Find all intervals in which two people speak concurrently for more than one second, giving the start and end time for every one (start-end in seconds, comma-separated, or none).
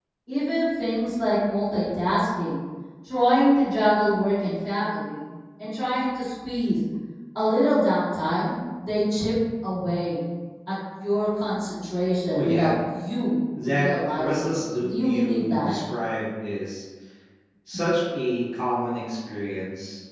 13.6-15.7